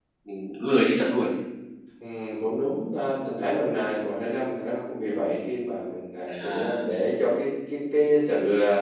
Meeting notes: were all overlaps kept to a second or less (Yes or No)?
Yes